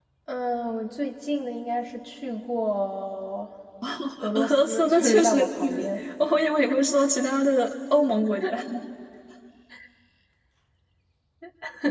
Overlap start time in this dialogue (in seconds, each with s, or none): 4.4 s